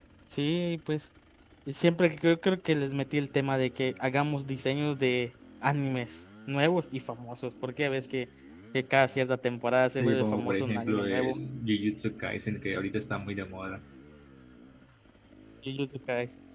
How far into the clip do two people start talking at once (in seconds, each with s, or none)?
9.9 s